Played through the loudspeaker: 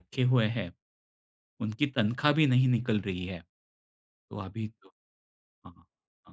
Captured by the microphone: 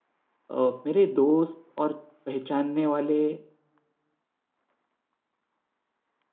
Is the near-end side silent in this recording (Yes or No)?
No